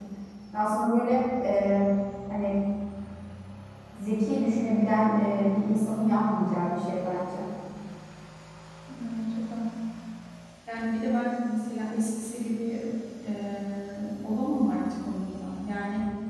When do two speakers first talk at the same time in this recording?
none

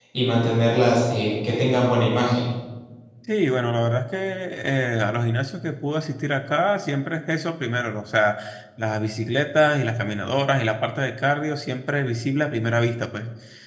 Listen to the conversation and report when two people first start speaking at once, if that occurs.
none

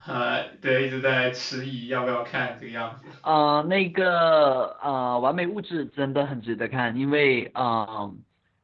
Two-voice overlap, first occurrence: none

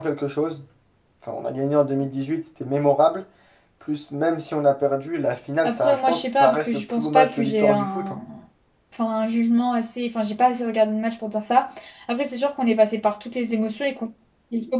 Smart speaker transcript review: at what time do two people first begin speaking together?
5.6 s

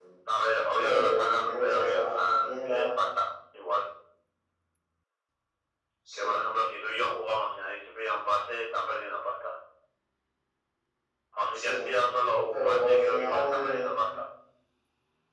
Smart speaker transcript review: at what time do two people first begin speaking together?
0.7 s

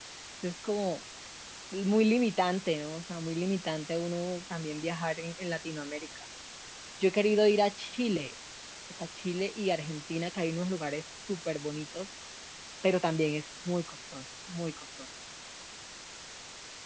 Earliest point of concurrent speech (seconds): none

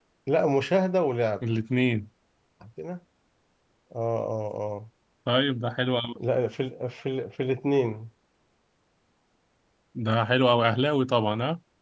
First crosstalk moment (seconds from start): none

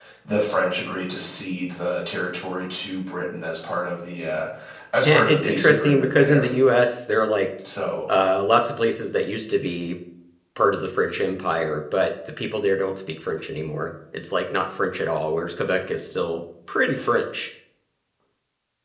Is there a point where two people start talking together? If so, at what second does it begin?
5.0 s

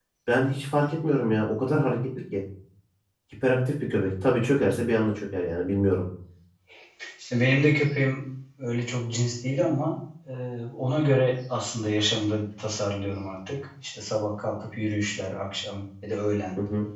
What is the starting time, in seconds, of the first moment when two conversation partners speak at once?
none

